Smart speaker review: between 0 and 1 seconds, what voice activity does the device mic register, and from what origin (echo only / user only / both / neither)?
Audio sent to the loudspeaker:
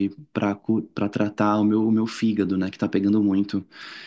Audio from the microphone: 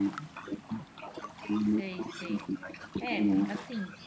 echo only